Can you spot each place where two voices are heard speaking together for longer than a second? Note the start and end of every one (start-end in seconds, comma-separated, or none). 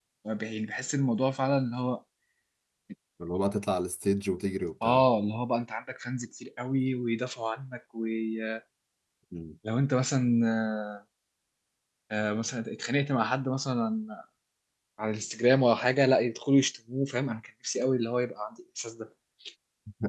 none